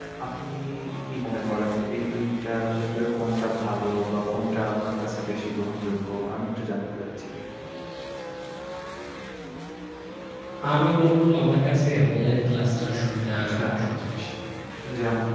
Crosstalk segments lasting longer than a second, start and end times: none

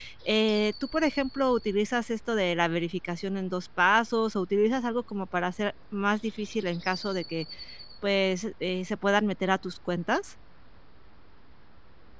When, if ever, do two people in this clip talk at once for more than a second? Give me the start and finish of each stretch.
none

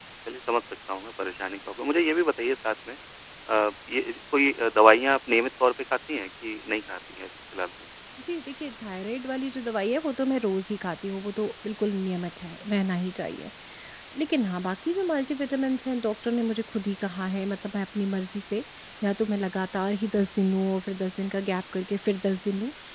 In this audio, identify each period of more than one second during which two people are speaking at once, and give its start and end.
none

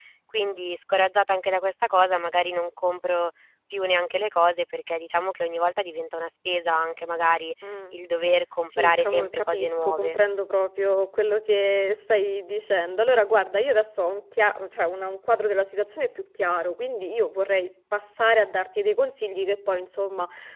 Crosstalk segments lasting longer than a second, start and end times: 8.7-10.2

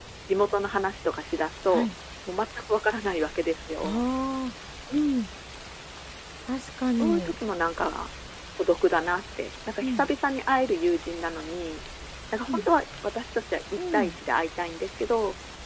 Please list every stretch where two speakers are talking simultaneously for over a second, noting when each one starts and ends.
none

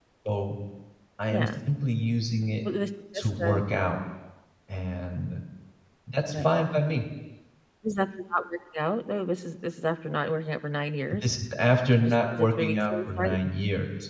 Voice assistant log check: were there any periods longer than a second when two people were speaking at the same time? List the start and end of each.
12.0-13.4

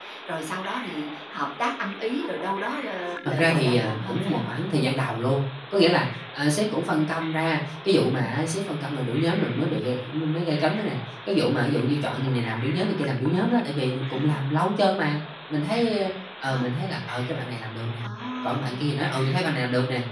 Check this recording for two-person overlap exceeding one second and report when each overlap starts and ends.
3.2-4.5

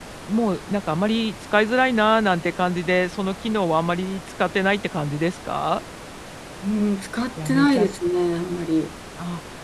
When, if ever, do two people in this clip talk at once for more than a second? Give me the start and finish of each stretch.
none

